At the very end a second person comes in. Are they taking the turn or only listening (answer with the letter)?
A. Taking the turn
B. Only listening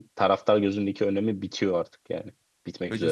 A